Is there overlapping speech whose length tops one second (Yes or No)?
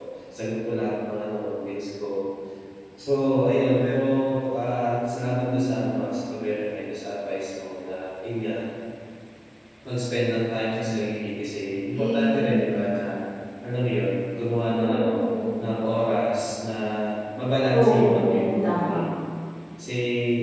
Yes